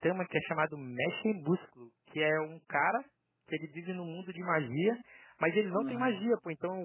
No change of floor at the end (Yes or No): Yes